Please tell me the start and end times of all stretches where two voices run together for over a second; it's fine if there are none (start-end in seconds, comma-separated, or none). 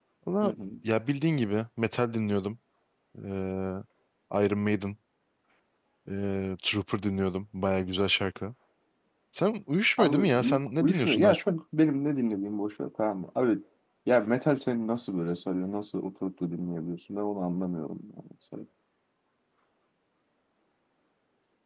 10.0-11.5